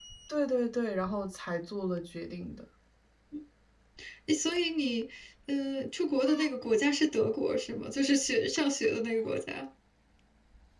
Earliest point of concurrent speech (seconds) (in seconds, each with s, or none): none